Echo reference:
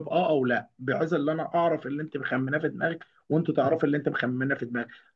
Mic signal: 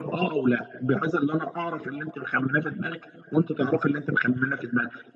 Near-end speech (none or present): none